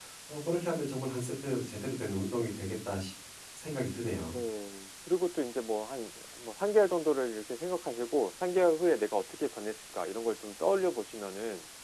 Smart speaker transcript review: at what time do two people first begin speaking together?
none

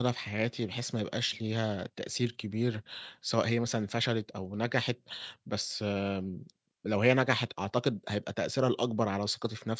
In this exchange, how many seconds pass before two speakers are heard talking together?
none

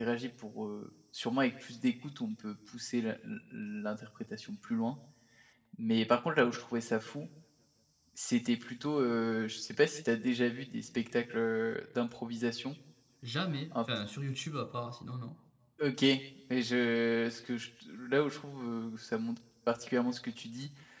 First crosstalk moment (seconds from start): none

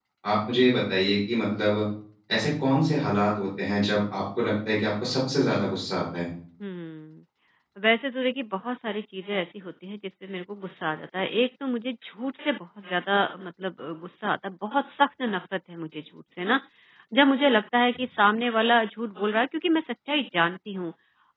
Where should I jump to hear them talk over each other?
none

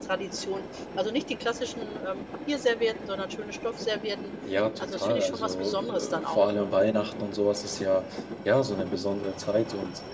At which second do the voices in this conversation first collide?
5 s

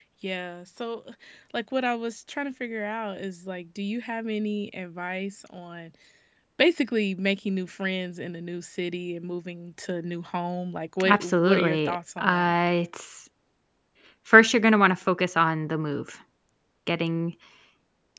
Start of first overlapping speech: 11 s

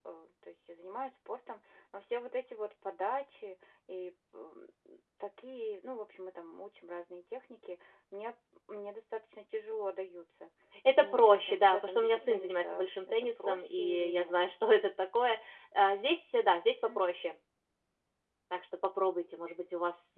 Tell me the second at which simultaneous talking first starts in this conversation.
11 s

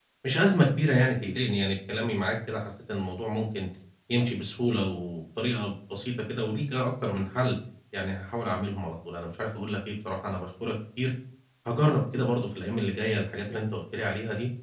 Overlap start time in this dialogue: none

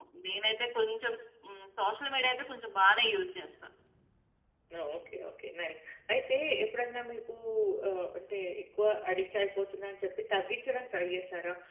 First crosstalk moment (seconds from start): none

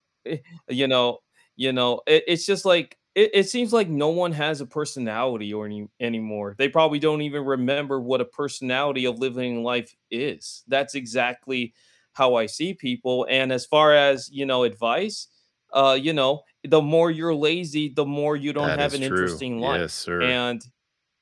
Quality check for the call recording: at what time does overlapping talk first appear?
19 s

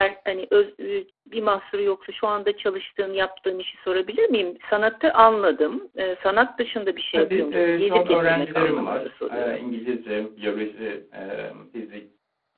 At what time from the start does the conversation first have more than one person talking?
7 s

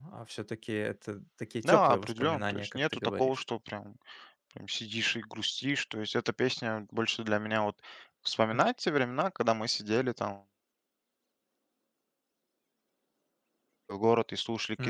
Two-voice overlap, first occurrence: 2 s

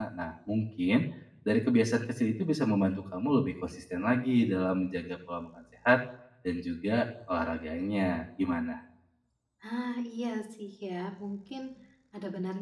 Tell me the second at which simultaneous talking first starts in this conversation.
none

